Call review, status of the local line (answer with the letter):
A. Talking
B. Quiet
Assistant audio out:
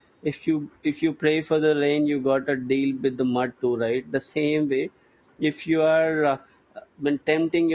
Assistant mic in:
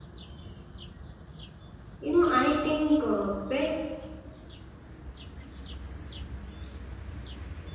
A